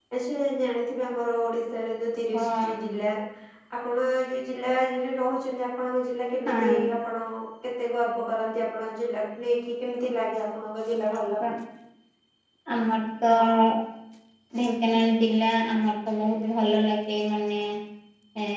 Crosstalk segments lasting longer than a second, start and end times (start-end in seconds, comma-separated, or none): none